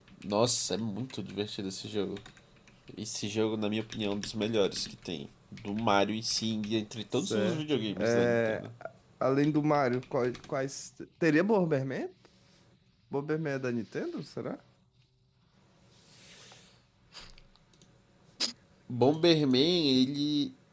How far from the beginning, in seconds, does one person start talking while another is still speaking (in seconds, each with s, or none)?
7.1 s